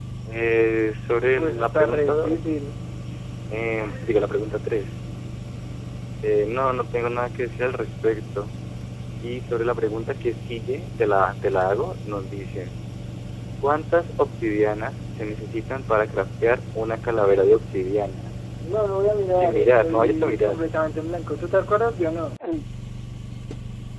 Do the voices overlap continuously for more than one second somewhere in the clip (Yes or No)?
Yes